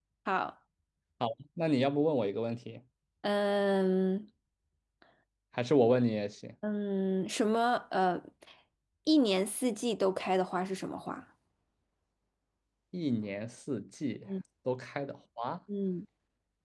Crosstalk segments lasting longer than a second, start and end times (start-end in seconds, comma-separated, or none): none